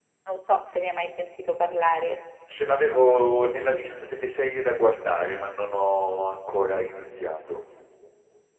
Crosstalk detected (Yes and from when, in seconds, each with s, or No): No